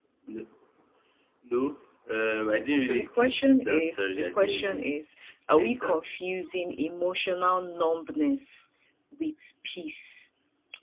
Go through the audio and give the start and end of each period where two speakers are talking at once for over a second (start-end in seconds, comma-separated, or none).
2.8-4.9